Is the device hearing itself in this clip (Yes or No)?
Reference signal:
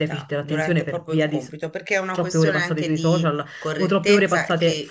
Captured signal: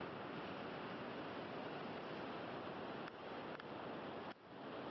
No